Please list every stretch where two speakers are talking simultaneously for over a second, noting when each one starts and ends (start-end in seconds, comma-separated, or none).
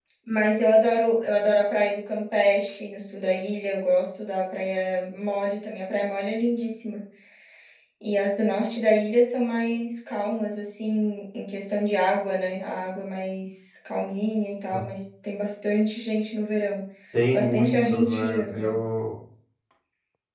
17.3-18.7